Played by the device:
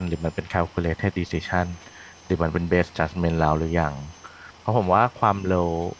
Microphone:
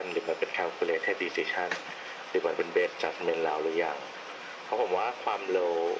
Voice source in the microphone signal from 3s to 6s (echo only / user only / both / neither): echo only